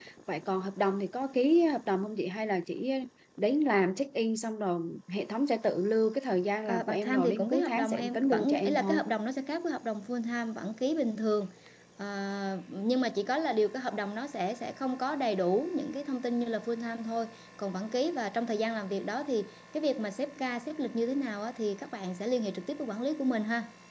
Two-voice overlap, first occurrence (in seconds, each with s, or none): 6.7 s